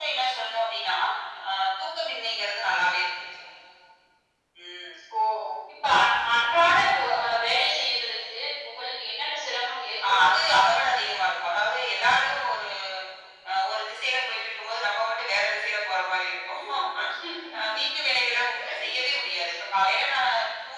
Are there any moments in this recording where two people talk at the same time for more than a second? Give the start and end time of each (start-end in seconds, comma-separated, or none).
none